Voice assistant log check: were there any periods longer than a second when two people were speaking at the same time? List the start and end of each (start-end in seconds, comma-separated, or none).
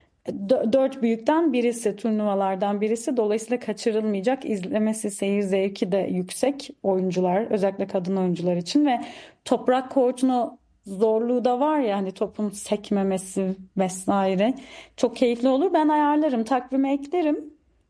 none